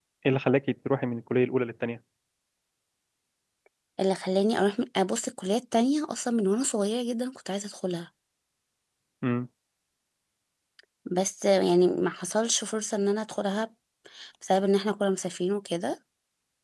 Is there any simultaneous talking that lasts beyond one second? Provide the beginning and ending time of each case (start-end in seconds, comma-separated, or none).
none